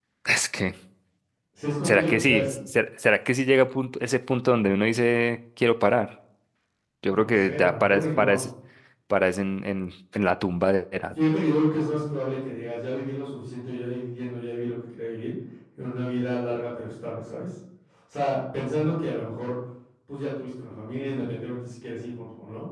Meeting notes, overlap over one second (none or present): present